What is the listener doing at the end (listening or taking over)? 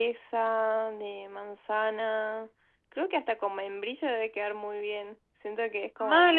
taking over